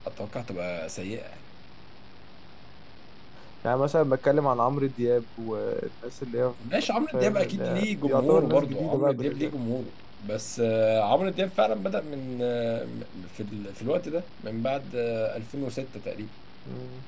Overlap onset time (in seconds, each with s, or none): 7.1 s